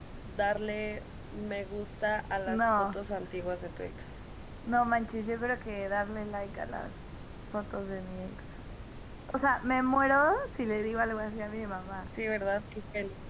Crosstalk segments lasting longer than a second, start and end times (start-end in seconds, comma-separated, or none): none